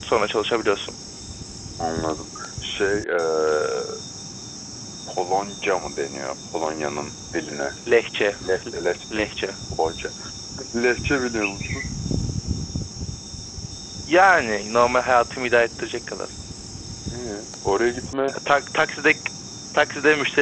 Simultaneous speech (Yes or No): No